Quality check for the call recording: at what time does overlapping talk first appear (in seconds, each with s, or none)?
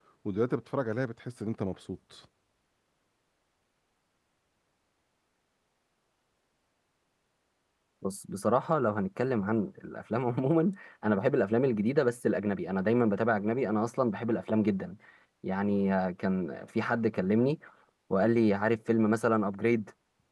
none